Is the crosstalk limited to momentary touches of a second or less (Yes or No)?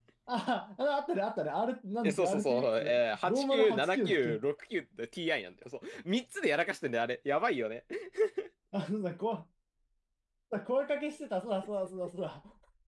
No